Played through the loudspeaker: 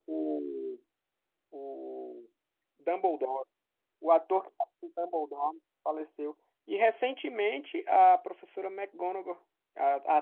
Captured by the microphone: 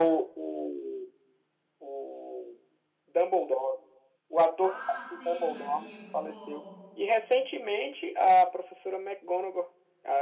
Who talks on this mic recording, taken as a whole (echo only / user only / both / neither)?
both